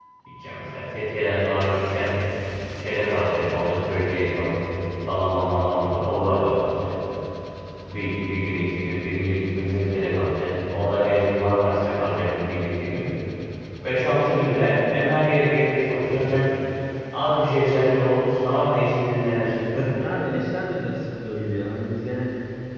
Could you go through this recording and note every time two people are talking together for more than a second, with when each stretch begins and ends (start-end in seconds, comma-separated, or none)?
none